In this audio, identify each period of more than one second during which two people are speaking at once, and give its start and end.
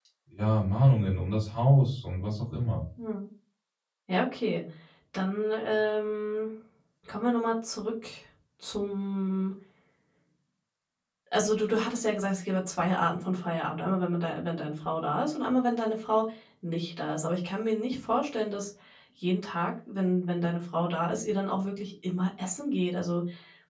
none

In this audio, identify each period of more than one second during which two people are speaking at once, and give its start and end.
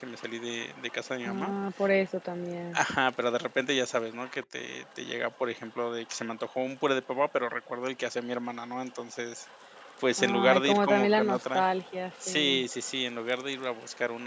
10.2-11.6

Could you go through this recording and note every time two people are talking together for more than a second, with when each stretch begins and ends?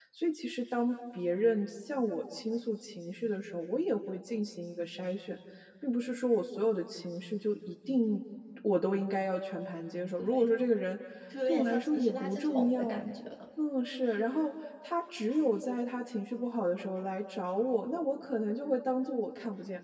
11.4-13.0

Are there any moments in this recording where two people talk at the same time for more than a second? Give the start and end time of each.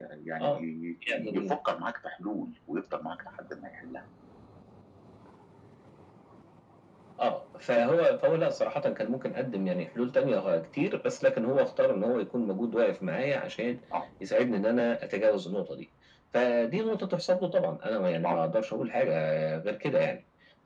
none

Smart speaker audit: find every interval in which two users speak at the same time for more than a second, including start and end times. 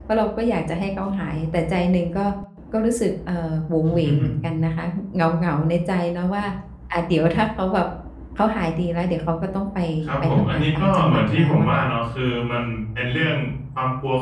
10.2-11.9

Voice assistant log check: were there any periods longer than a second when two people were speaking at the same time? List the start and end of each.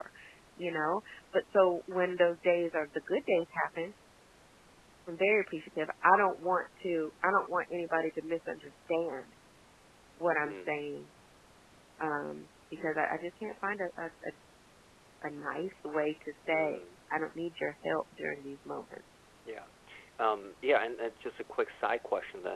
none

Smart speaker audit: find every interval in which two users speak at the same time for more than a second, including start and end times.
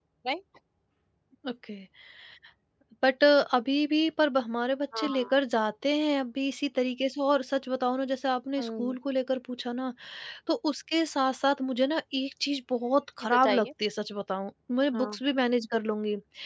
none

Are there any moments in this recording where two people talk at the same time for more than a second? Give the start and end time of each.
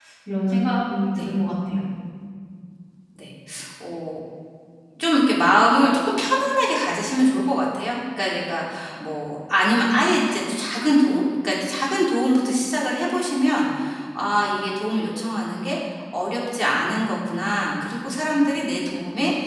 none

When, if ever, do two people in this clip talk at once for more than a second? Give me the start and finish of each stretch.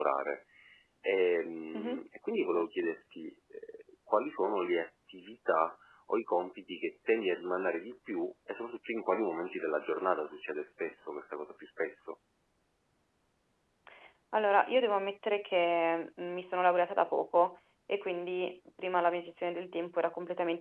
none

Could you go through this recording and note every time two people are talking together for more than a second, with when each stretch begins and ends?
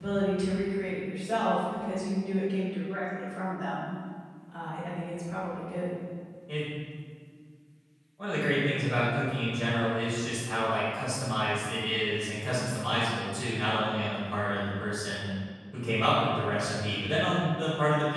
none

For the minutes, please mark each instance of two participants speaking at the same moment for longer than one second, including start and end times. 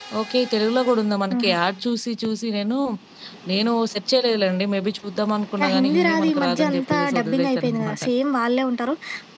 5.6-8.0

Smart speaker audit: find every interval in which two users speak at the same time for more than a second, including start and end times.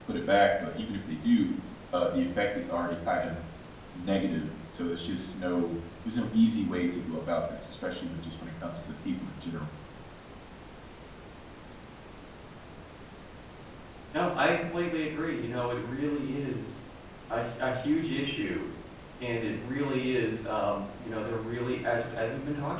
none

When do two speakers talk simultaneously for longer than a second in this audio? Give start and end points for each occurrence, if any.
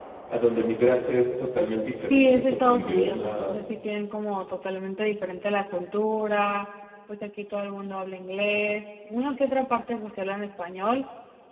2.0-3.6

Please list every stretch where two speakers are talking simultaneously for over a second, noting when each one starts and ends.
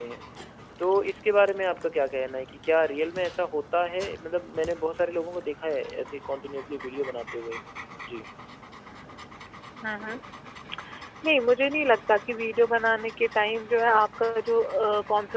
none

